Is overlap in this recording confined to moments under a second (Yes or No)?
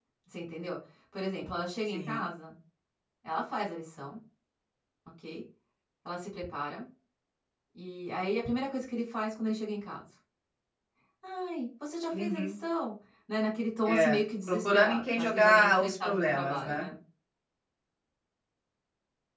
No